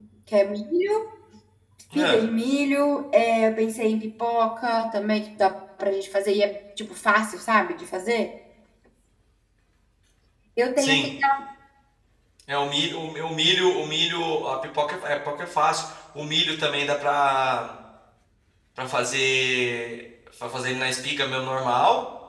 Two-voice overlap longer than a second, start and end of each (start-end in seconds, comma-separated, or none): none